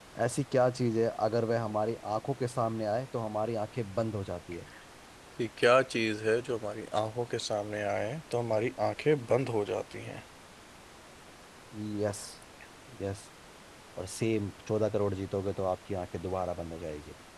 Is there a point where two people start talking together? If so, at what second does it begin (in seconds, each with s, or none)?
none